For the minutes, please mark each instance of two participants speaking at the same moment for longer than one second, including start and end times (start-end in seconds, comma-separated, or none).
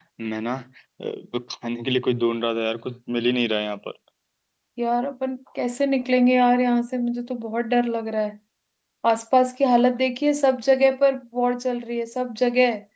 none